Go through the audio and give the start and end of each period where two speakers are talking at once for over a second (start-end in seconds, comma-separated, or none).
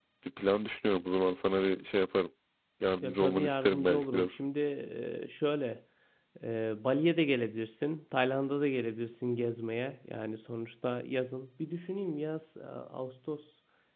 3.0-4.4